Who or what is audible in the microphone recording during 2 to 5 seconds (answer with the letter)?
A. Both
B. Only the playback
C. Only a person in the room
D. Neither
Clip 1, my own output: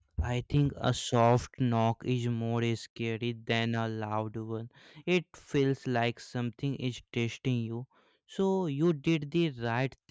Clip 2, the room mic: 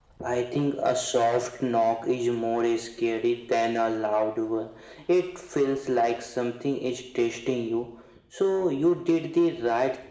B